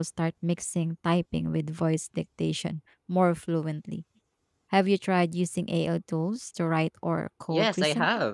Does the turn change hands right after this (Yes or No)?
Yes